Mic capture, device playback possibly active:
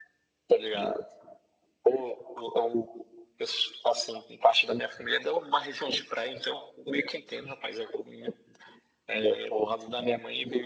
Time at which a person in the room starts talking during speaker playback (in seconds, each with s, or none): none